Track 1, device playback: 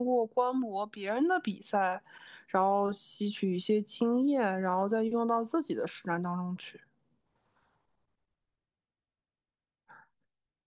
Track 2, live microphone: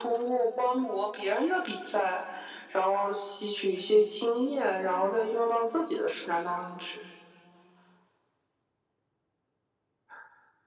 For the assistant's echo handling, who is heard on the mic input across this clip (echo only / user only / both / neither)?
echo only